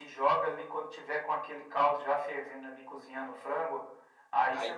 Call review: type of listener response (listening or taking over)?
listening